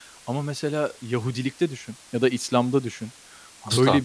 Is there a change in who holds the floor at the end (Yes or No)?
No